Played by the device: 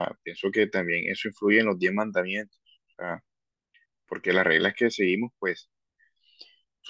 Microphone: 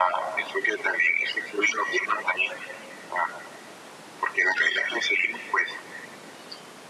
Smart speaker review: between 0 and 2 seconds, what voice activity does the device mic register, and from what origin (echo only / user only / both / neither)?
echo only